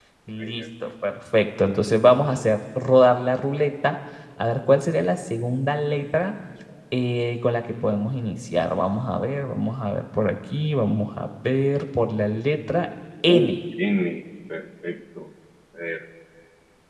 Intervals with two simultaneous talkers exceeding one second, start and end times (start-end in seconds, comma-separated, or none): none